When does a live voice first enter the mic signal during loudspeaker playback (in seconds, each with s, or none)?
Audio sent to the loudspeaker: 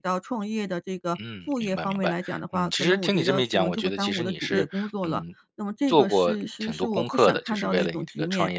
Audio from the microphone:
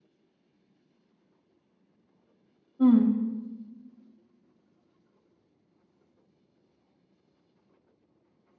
2.8 s